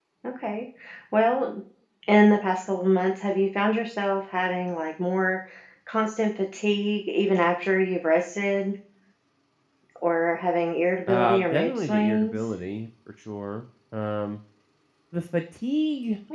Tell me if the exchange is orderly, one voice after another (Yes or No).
No